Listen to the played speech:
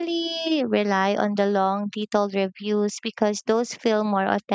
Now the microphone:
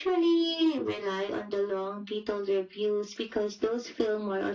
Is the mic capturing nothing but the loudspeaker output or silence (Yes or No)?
Yes